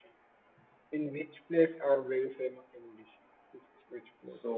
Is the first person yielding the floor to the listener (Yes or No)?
Yes